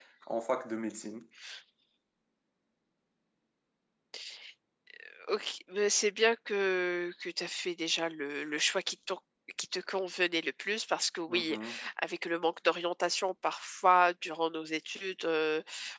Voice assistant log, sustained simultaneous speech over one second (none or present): none